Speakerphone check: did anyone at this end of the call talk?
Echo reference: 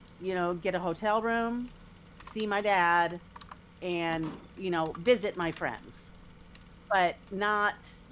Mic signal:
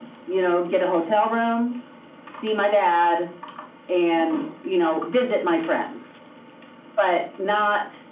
No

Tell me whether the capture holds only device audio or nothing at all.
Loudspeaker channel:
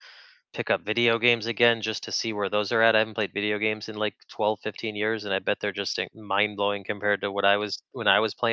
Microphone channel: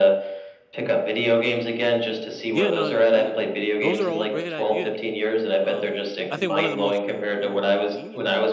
No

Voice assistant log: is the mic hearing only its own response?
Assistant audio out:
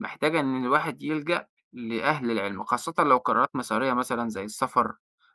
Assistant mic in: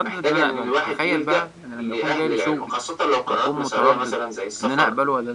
No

